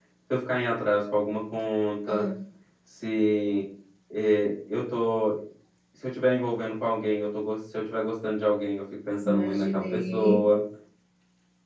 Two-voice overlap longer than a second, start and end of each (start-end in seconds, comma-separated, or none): 9.3-10.5